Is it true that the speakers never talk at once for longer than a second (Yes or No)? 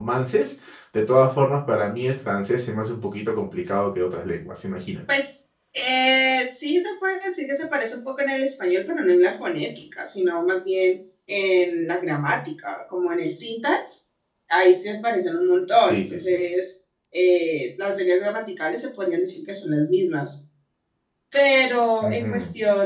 Yes